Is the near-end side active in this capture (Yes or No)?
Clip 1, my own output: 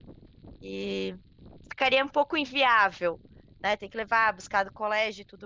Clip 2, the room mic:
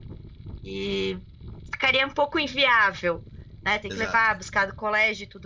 Yes